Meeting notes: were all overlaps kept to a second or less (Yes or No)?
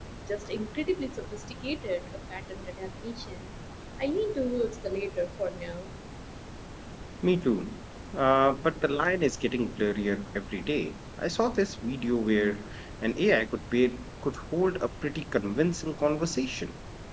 Yes